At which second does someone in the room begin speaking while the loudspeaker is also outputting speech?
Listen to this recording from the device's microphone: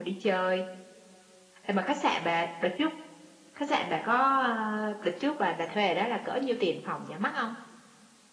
none

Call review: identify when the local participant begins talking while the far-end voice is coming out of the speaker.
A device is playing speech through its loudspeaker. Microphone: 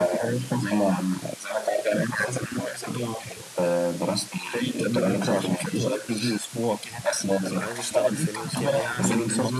7.6 s

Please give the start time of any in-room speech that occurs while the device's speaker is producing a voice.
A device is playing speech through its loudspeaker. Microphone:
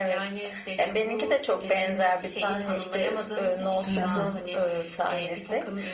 3.9 s

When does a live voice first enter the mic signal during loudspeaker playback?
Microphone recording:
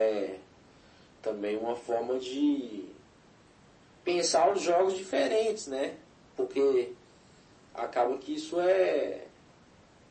none

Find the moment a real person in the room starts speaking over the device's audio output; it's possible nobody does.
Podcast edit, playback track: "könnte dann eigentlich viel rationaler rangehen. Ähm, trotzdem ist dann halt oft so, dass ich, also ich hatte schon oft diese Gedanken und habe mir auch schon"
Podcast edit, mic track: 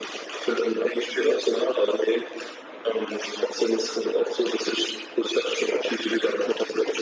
none

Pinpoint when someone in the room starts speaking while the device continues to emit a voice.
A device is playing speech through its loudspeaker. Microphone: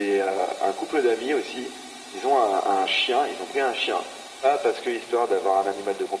none

